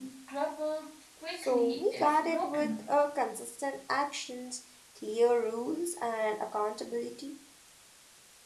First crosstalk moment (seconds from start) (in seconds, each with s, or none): 1.4 s